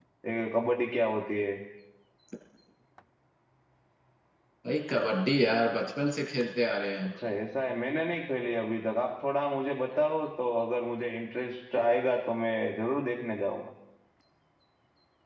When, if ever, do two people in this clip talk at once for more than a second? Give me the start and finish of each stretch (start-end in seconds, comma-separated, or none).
none